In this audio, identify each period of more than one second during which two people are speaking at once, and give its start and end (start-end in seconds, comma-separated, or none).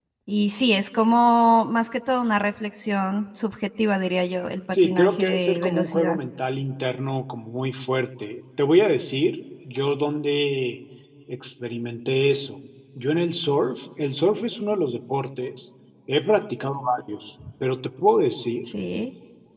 4.8-6.2